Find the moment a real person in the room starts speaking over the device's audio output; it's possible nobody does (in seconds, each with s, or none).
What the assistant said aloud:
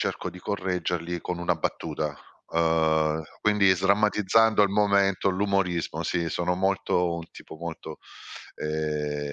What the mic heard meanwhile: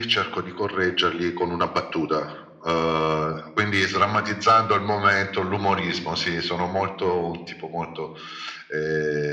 none